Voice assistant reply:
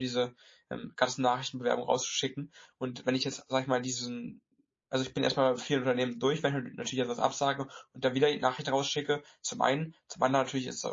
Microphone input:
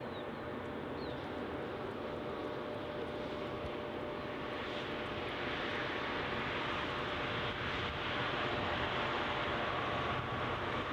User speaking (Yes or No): No